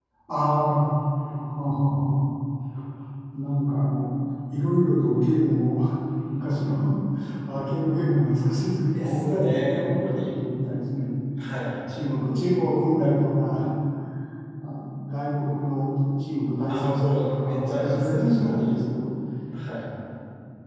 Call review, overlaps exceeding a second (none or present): present